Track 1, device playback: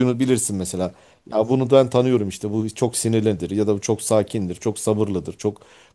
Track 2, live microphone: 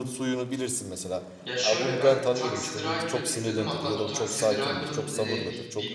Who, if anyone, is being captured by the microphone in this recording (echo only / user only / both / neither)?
both